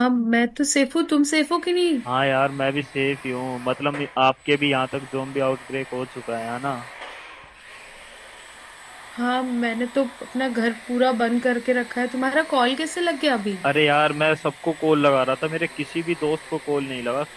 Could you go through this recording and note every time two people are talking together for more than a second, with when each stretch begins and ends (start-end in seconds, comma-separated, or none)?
none